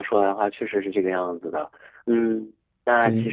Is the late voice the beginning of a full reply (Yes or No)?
No